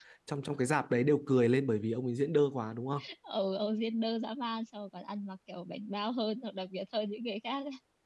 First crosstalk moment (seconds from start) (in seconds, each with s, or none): none